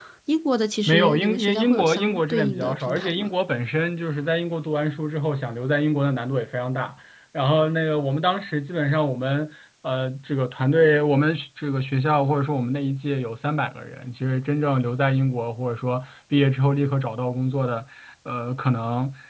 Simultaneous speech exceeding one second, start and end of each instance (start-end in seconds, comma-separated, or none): 0.9-3.3